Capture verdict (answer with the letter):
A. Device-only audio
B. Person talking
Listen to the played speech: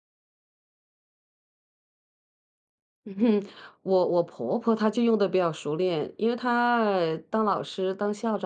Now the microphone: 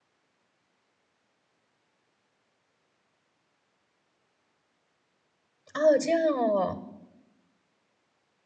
B